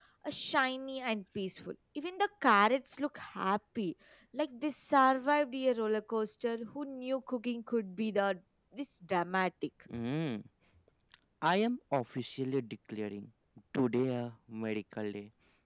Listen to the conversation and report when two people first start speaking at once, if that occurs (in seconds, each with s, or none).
none